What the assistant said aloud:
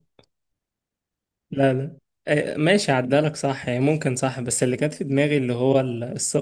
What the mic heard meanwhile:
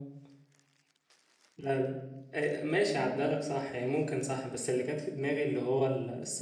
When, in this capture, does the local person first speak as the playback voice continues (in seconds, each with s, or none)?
none